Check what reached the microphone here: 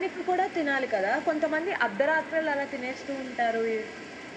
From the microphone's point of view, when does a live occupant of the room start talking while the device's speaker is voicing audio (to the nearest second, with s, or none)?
none